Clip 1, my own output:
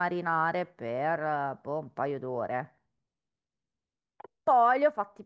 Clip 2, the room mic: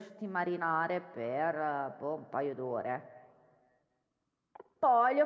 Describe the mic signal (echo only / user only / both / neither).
echo only